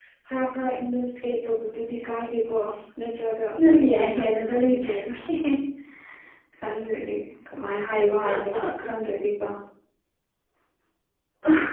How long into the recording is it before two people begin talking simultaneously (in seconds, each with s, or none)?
3.6 s